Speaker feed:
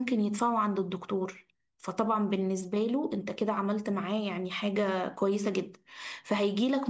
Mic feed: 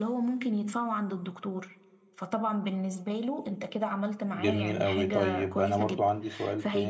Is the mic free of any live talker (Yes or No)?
No